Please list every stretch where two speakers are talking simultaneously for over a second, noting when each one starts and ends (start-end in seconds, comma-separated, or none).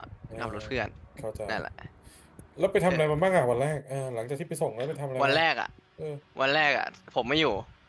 none